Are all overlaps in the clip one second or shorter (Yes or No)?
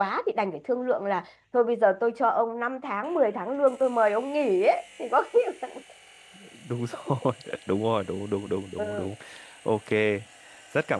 Yes